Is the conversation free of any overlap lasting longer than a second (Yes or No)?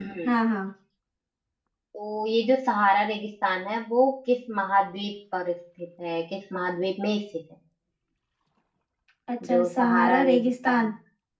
No